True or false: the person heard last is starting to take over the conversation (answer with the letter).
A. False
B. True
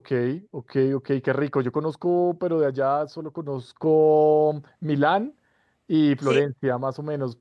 A